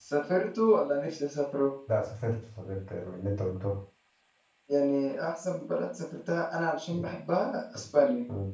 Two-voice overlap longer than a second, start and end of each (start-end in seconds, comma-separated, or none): none